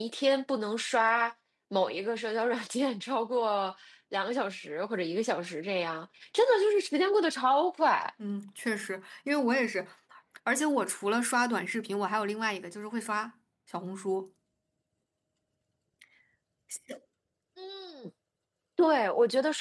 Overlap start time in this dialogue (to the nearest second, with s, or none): none